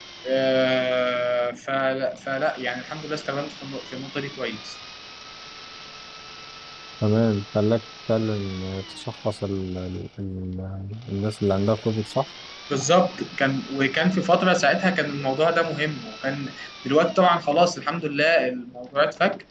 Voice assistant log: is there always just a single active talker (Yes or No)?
Yes